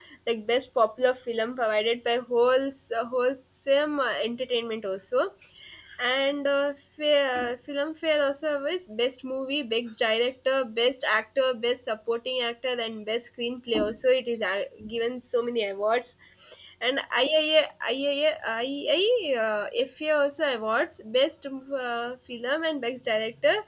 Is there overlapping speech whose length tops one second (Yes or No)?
No